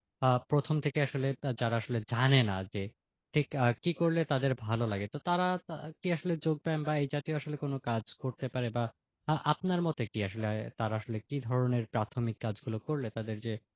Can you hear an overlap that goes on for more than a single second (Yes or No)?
No